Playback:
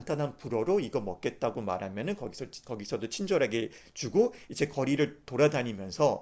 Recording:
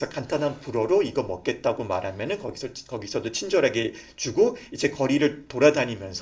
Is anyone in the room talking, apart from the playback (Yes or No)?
No